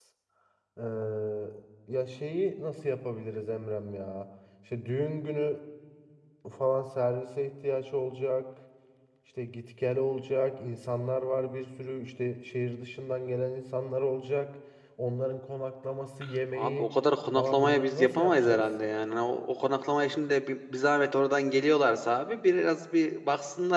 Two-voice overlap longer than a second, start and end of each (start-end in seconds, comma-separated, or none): 17.4-18.6